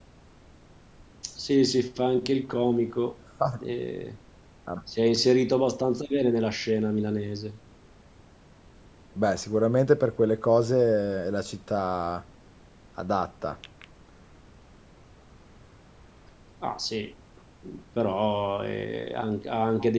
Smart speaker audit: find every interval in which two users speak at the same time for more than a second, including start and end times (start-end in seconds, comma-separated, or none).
none